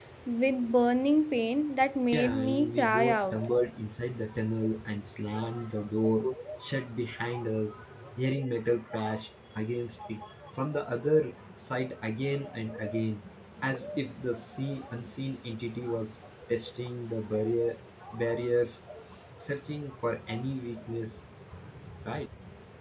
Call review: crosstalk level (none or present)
present